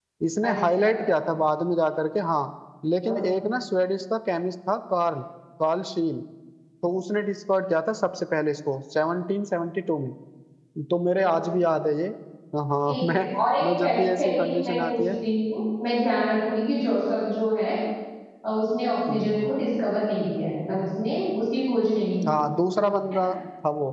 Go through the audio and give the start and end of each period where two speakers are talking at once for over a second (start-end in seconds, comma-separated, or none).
13.6-15.0